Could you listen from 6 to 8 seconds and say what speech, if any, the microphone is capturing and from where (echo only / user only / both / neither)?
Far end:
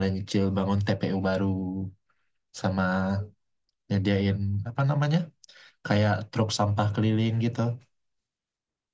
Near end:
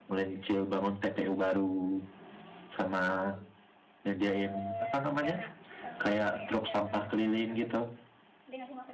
both